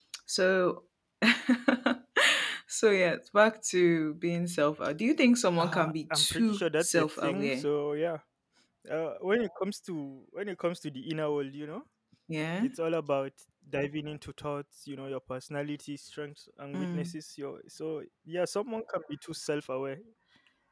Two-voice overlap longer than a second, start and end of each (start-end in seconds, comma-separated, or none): 5.6-7.6